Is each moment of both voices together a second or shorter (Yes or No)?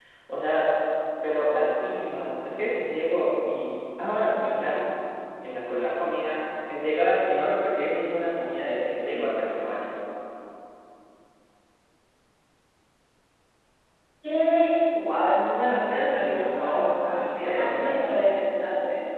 No